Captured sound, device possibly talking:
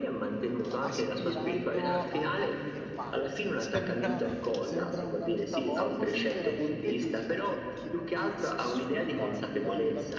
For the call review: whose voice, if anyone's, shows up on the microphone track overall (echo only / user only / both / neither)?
both